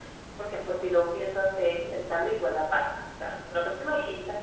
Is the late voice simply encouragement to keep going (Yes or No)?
Yes